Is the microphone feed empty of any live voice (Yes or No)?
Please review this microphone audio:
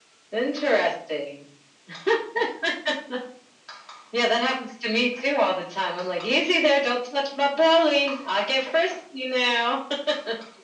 Yes